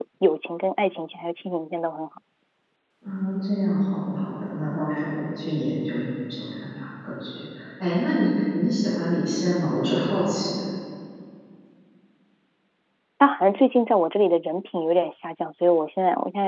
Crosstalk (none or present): none